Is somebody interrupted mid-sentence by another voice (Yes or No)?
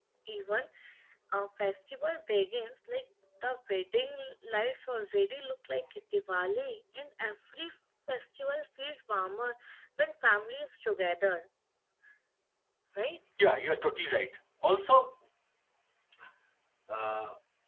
No